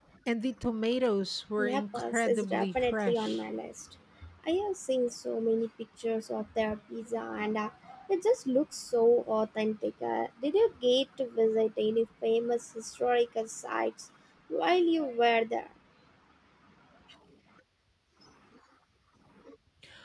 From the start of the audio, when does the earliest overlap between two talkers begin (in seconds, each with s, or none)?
1.6 s